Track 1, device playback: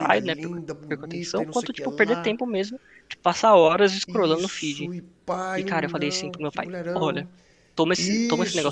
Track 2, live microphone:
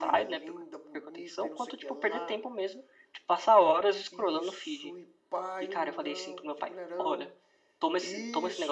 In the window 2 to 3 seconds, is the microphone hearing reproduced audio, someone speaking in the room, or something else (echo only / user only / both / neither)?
echo only